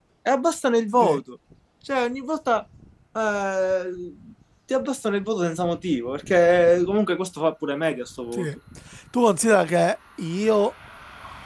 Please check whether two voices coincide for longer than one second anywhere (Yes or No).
No